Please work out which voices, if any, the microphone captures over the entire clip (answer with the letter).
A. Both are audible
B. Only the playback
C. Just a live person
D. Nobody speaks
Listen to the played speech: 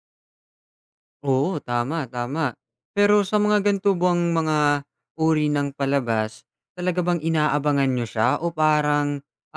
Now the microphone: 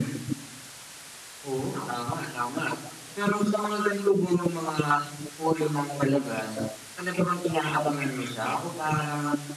B